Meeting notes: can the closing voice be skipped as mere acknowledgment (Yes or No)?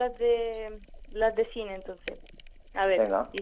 Yes